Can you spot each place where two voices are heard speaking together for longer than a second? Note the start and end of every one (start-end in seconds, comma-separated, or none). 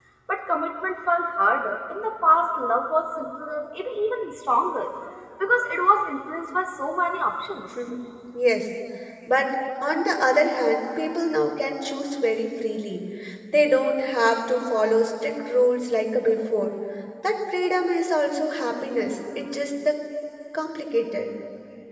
none